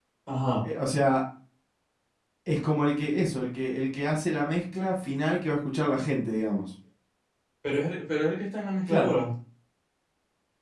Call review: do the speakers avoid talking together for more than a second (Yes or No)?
Yes